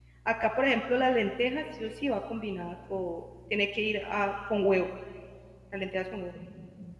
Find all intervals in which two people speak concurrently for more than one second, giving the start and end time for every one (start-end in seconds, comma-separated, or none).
none